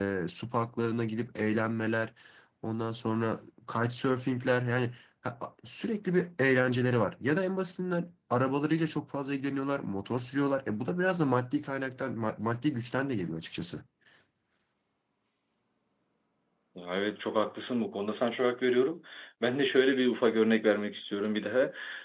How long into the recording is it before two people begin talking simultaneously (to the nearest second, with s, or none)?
none